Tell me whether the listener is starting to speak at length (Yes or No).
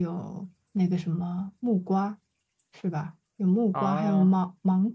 No